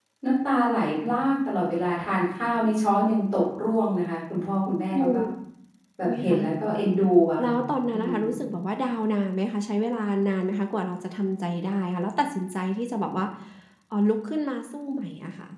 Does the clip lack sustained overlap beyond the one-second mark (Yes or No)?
Yes